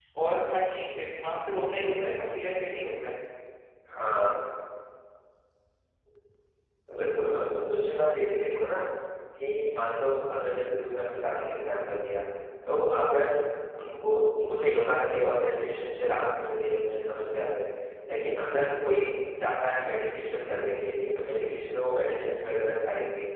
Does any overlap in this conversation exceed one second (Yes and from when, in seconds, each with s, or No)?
No